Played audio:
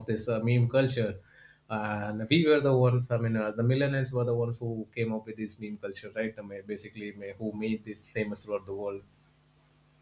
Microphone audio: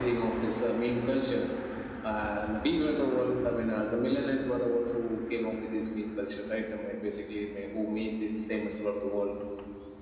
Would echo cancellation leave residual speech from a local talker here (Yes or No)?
No